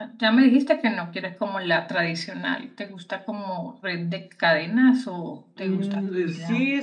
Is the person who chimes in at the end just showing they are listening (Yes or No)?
No